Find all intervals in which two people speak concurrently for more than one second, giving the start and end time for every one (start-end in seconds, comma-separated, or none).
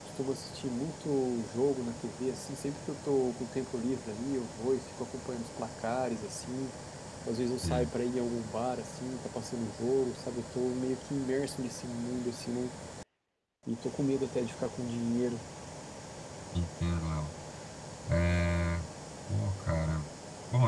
none